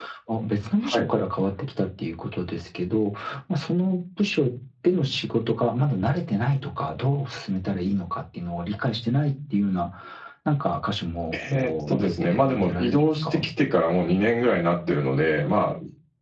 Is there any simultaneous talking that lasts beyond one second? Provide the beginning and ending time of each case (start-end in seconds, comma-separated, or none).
11.3-13.5